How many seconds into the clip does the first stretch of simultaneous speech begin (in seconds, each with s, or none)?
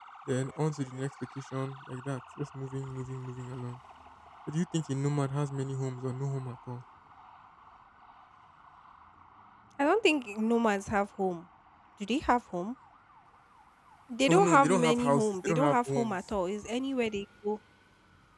14.3 s